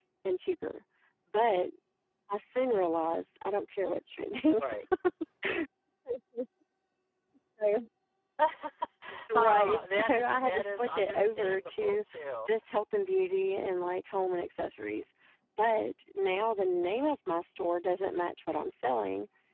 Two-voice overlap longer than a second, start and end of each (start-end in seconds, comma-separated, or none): 9.3-12.0